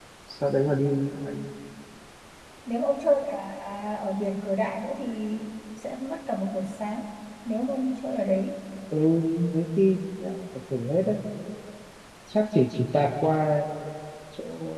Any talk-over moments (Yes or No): No